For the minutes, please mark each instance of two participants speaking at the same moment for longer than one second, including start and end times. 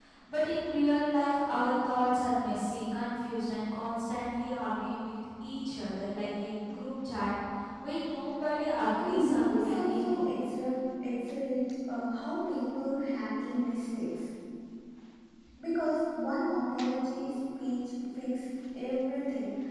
9.0-10.2

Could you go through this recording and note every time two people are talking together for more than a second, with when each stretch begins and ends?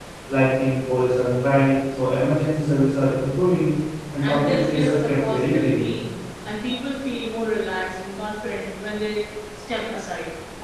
4.2-5.9

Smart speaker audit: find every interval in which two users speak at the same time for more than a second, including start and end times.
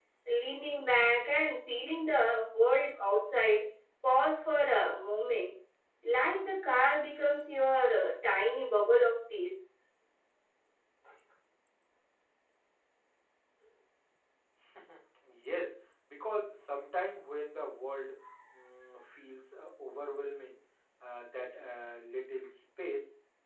none

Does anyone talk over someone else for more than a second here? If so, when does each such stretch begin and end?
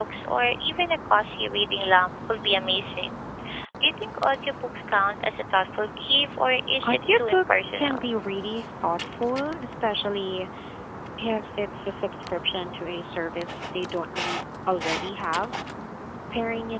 6.8-8.0

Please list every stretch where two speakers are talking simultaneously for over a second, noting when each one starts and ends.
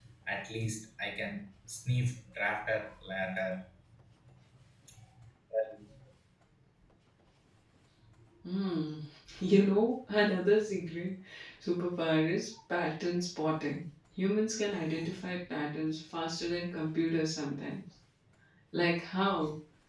none

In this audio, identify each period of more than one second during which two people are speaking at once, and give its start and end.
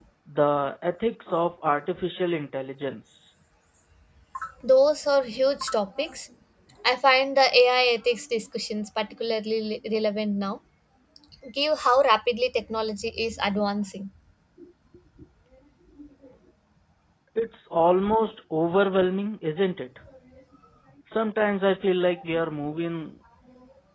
none

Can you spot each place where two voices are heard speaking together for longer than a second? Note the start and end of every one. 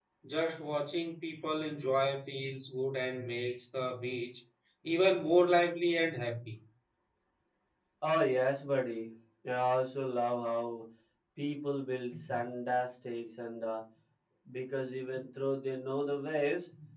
none

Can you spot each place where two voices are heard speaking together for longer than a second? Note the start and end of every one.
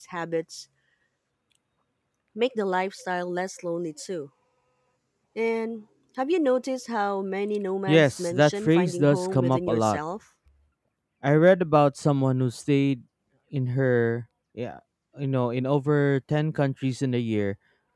7.9-10.0

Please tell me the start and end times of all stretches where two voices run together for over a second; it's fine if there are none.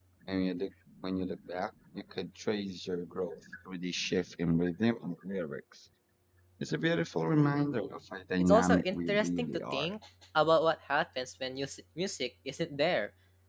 8.4-9.9

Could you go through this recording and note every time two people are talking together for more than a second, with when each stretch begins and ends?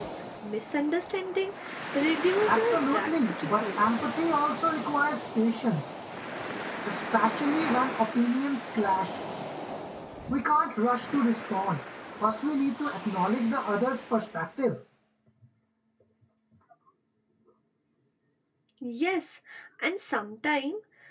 2.5-3.8

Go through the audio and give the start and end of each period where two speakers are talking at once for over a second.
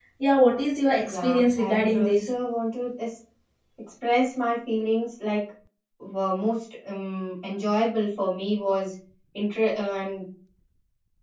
1.1-2.3

